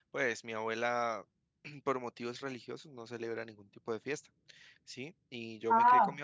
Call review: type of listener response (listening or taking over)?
listening